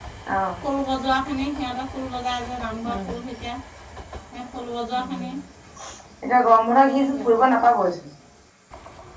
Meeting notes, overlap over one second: none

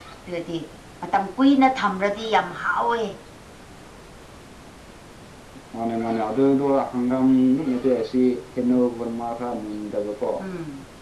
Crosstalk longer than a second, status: none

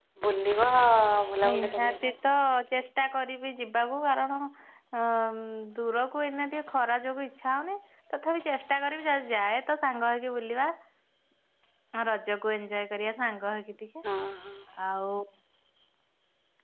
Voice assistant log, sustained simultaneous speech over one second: none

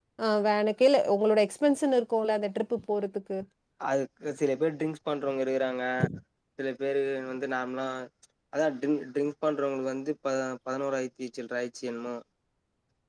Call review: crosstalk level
none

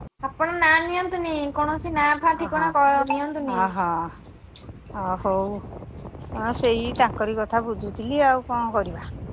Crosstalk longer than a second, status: none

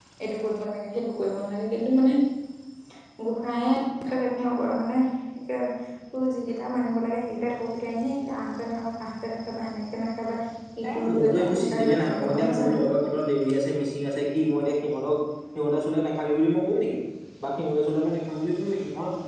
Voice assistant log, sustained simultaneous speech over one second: present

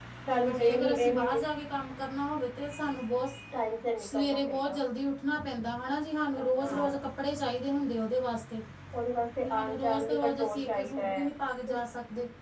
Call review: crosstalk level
present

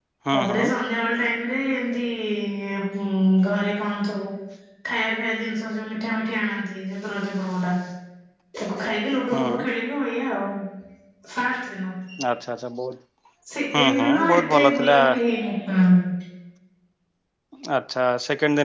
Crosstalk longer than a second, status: present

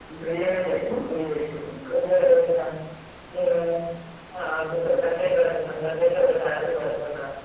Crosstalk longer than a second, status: none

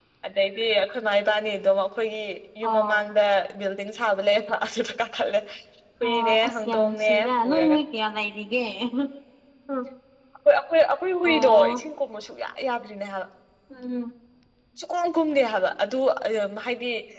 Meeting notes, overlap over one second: present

